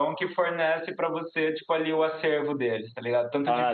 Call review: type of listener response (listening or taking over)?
listening